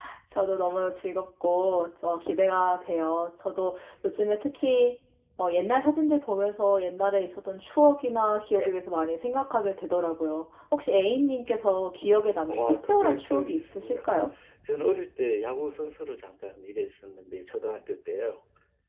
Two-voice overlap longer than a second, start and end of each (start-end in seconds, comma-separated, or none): 12.5-14.1